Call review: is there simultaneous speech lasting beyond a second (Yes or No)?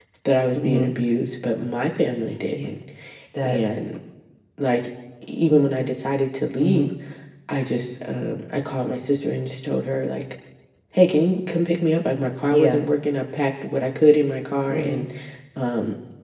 No